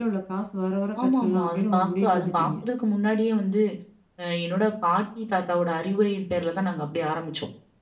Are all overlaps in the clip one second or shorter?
No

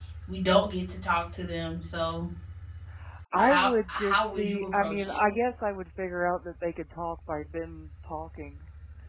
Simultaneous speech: Yes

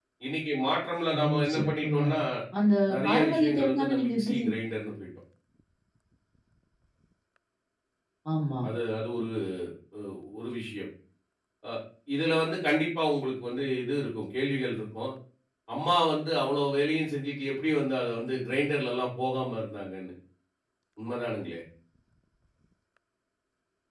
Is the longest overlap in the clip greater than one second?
Yes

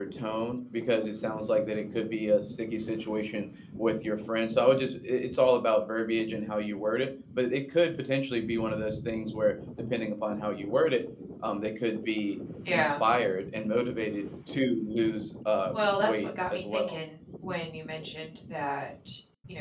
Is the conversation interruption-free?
No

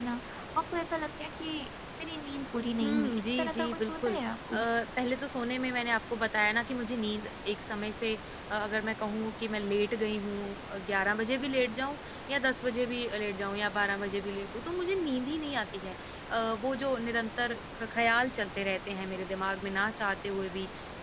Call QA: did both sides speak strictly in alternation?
No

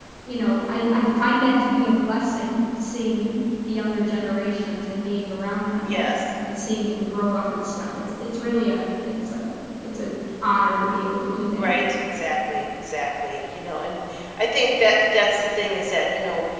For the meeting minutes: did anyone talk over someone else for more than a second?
No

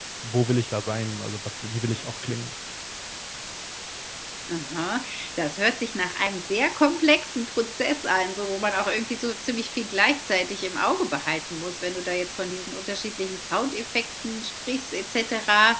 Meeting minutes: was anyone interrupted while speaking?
No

